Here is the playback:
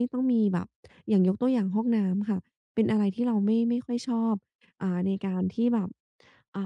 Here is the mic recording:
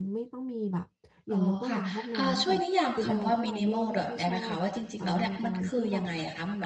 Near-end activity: present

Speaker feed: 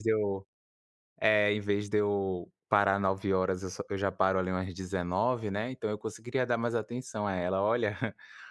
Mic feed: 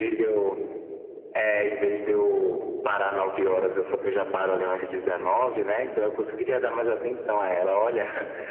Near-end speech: none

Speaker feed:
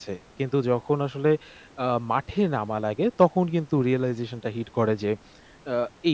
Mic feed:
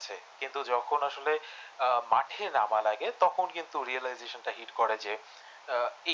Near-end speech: none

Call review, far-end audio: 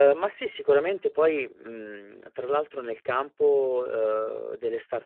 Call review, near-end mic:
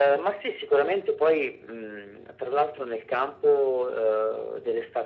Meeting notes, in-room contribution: none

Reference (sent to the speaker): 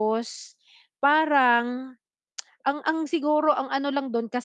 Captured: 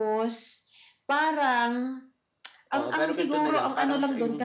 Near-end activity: present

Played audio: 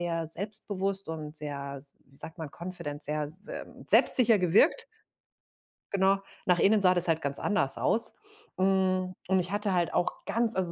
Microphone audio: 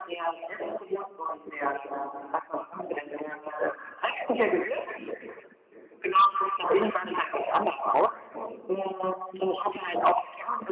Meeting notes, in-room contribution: none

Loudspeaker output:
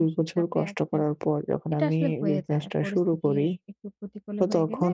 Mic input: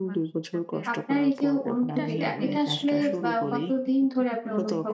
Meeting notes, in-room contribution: present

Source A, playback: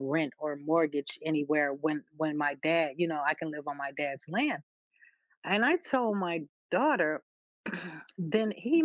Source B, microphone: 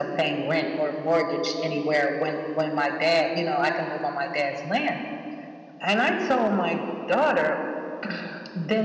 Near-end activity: none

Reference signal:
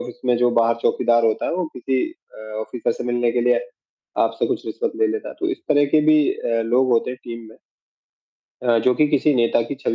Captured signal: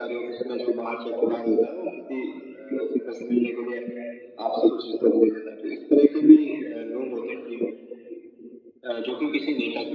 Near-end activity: none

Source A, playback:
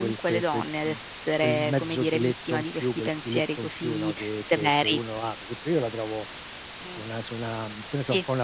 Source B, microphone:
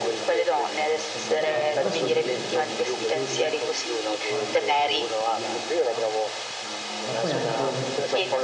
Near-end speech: present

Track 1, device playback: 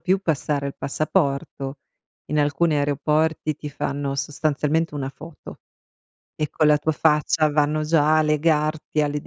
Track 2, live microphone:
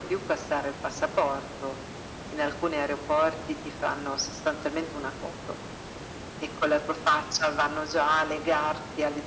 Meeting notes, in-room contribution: none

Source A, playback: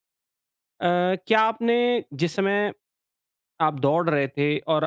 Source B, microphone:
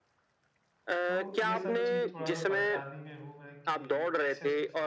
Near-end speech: present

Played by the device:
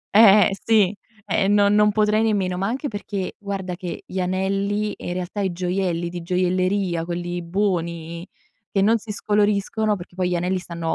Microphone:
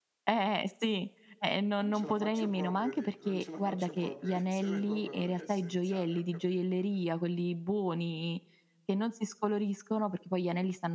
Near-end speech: present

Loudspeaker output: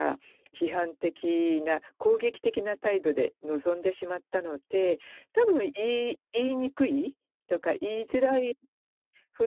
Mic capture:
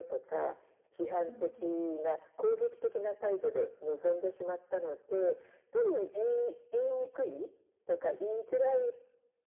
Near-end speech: present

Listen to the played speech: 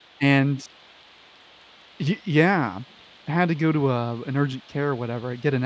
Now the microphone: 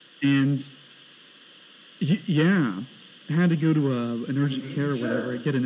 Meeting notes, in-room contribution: present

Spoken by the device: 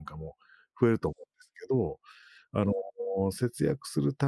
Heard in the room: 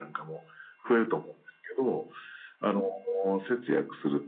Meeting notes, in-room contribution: none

